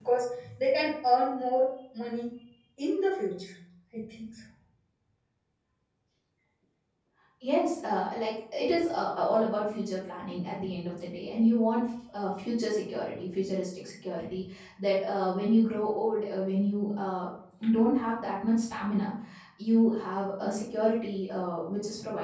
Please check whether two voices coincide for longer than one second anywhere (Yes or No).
No